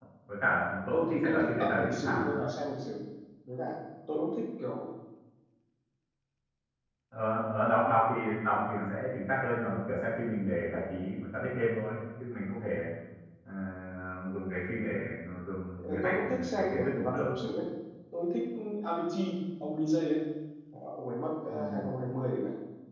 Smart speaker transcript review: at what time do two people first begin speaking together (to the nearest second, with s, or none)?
1 s